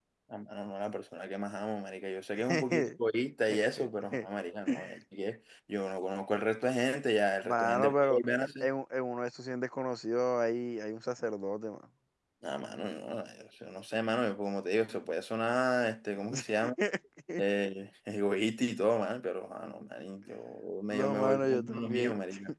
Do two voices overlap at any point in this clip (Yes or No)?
Yes